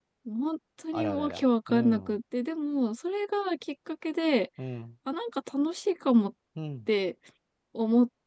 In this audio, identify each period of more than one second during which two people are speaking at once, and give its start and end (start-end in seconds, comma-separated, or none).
0.9-2.1